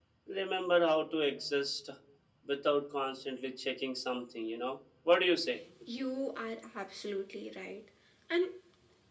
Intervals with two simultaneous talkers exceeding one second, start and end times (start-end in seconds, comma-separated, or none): none